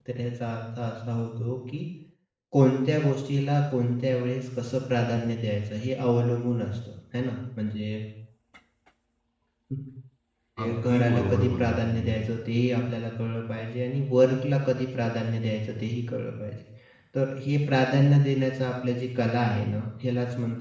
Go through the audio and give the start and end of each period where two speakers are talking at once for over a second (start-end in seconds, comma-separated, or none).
10.6-12.1